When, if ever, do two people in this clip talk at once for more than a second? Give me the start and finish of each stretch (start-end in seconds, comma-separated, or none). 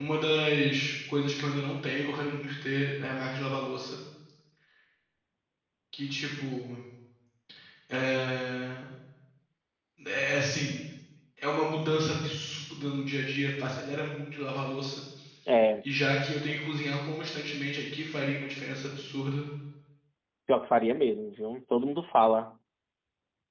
none